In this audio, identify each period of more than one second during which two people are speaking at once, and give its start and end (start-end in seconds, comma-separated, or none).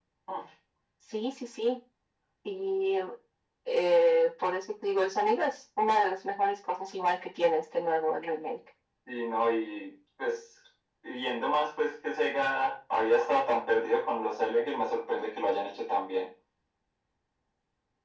none